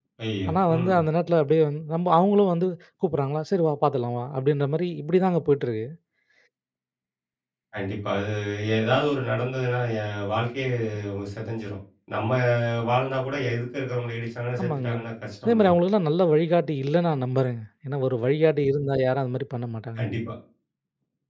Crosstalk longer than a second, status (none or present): none